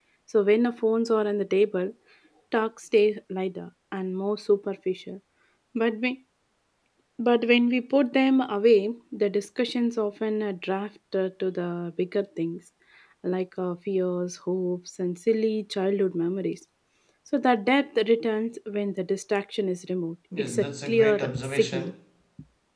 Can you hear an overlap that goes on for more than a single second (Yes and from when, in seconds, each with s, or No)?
Yes, from 20.3 s